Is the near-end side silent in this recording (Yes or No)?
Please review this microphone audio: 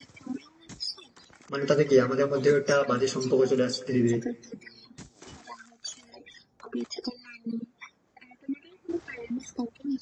No